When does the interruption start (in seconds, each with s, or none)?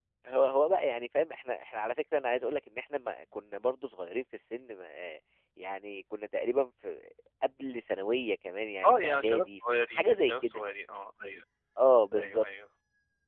8.8 s